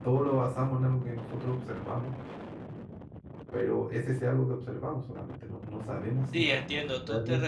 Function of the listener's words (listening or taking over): taking over